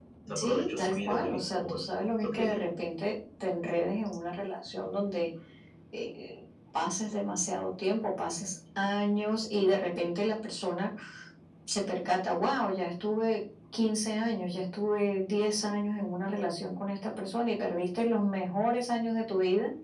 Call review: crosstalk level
present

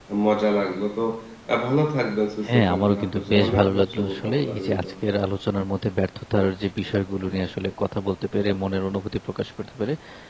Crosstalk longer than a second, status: present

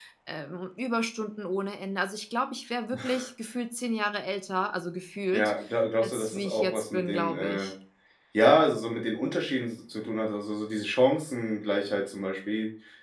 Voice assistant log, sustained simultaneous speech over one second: present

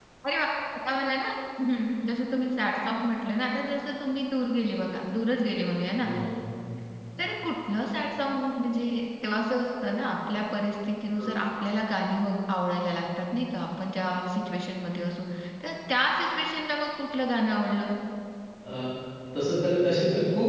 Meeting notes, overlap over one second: none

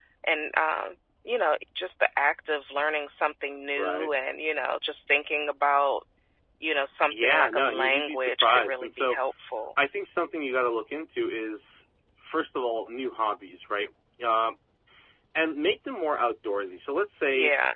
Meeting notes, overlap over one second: present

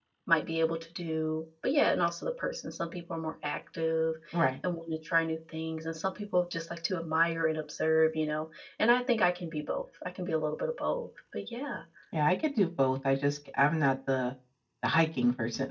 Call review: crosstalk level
none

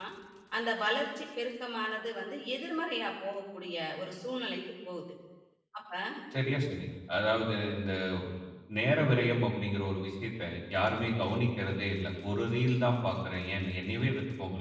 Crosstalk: none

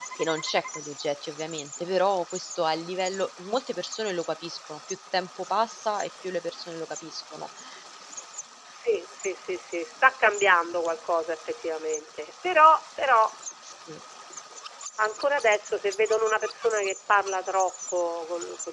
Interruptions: none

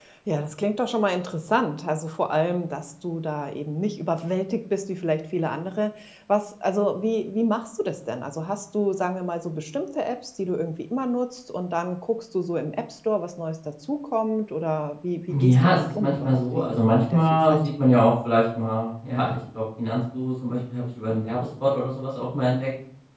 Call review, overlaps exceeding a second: present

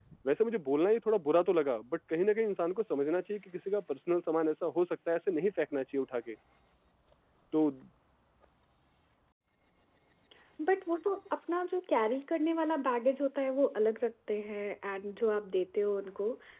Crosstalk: none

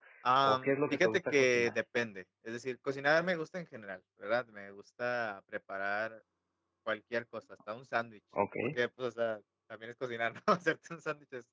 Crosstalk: present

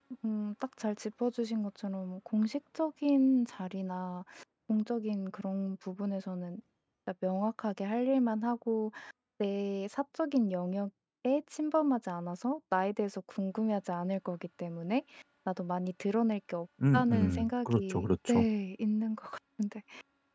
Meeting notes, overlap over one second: present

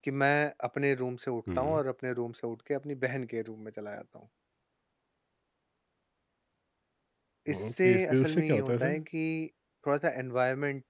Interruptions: present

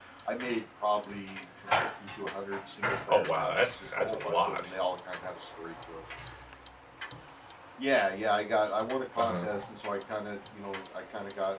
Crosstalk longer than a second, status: present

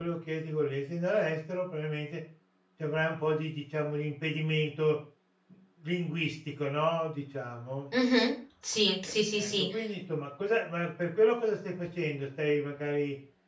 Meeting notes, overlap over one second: none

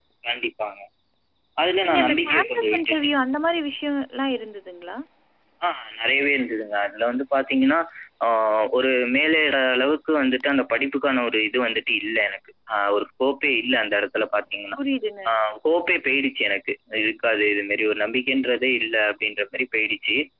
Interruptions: present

